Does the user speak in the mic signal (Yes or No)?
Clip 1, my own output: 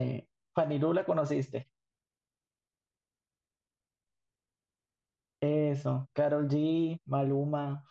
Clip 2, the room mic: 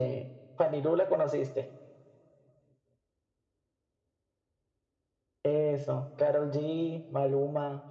No